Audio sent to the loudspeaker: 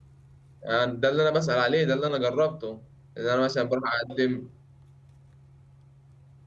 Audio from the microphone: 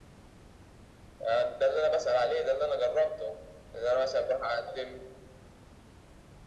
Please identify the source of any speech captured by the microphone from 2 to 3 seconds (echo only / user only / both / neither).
echo only